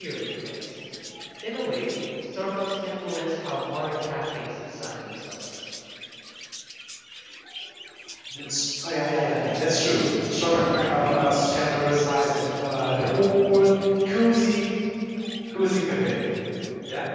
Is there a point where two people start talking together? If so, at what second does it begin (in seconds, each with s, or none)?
none